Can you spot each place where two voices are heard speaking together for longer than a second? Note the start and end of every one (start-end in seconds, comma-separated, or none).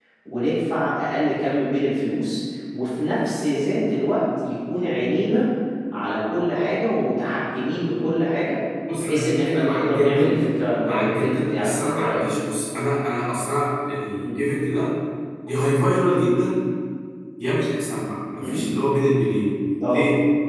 9.0-10.4, 10.8-12.2